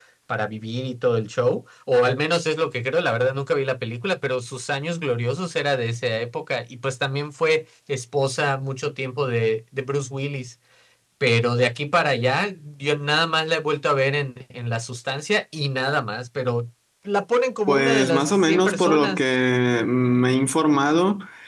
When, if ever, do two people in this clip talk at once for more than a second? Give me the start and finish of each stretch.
17.7-19.2

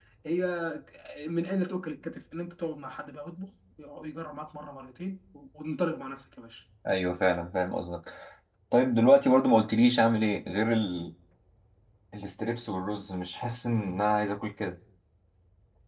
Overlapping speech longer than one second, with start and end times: none

